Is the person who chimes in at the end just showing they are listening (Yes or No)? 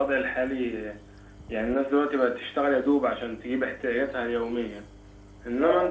Yes